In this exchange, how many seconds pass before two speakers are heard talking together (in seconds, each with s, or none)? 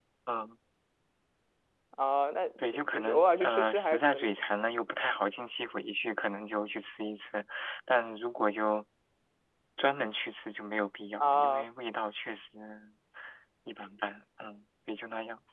2.6 s